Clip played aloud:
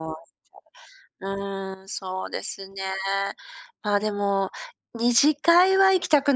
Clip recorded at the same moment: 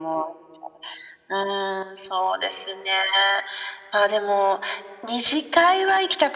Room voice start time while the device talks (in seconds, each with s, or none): none